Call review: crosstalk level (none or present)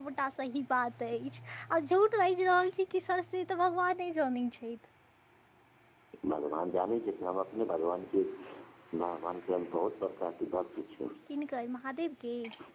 none